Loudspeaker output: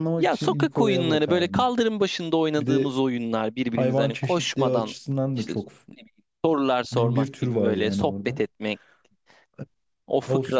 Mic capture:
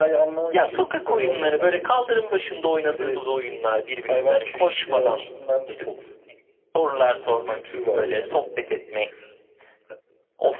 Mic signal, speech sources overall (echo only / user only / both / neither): echo only